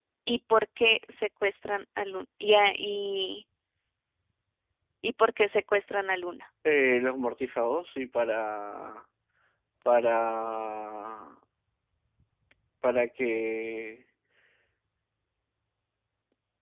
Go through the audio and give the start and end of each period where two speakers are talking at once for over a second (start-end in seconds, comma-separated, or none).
none